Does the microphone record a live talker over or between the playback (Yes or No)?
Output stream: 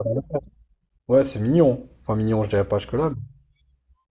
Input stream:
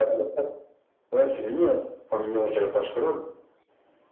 No